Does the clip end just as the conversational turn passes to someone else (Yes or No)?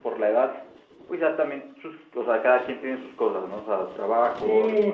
Yes